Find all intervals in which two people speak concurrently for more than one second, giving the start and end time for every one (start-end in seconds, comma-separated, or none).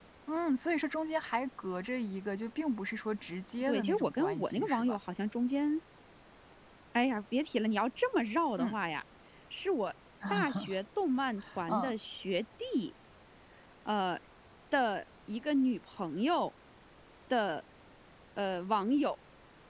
3.6-5.0